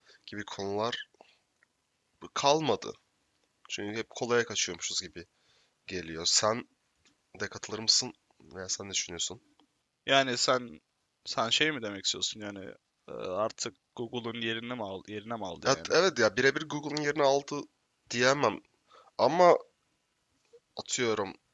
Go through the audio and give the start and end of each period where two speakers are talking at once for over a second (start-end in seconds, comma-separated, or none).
none